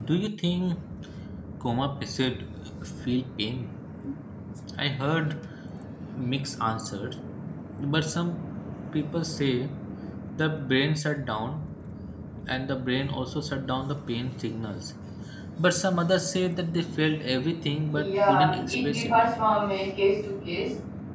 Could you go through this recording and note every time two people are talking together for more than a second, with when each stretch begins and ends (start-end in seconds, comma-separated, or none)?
17.9-19.2